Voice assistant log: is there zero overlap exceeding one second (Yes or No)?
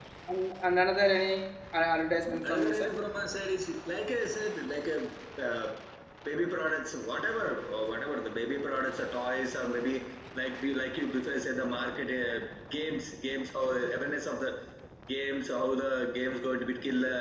Yes